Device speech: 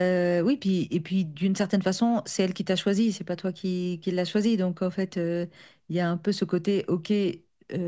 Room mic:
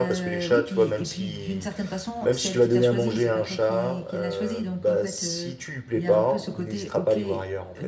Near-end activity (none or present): present